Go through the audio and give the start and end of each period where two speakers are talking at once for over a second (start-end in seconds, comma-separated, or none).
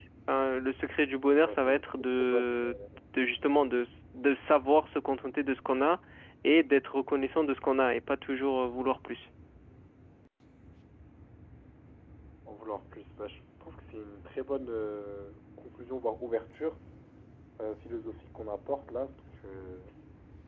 1.4-2.7